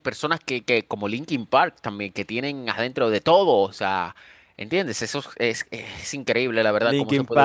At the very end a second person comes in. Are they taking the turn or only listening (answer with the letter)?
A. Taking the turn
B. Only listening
A